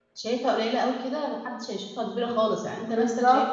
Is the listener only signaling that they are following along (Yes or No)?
Yes